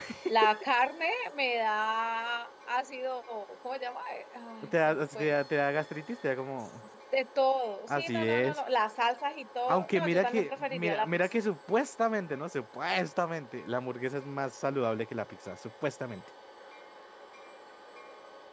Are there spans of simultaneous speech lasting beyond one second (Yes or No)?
Yes